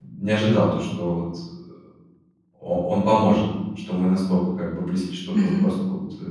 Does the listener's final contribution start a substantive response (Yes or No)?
No